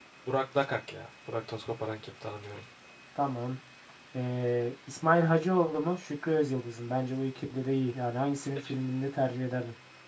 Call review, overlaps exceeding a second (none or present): none